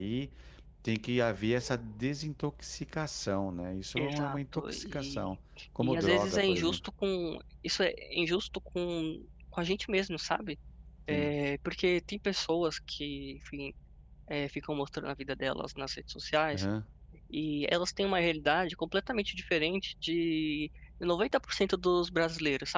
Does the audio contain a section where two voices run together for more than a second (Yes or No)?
Yes